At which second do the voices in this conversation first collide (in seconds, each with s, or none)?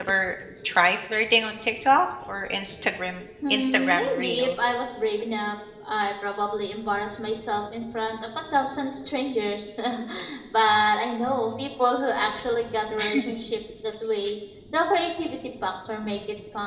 3.5 s